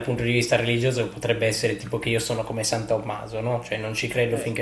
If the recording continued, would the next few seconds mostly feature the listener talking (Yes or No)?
No